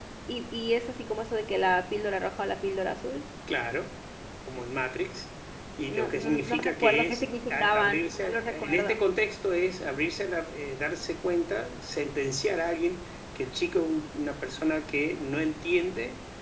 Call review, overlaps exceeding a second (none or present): present